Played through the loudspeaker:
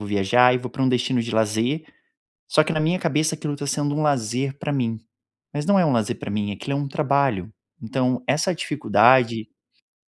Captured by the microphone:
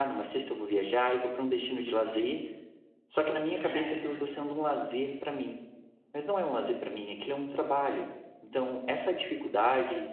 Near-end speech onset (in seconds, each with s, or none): 3.6 s